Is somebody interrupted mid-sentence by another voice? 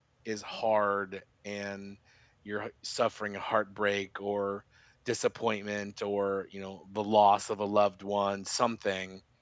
No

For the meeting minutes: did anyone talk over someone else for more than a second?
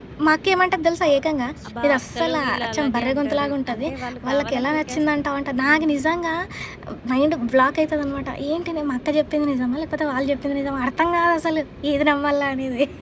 Yes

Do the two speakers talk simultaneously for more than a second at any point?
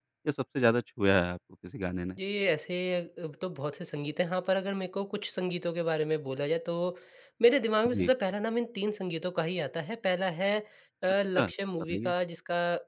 No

